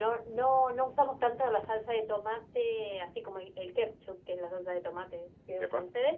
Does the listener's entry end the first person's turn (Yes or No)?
No